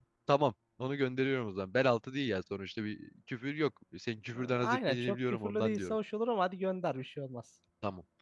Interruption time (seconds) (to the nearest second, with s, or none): 5 s